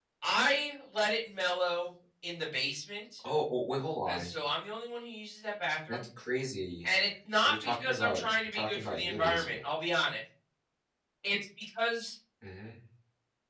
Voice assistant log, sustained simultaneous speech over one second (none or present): present